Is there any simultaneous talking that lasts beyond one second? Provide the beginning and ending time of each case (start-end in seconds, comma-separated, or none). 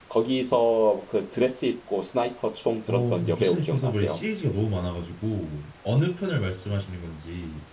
2.9-4.2